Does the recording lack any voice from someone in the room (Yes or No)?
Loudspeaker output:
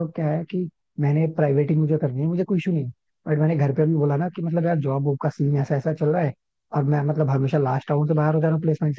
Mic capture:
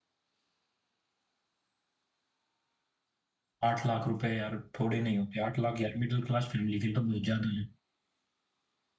No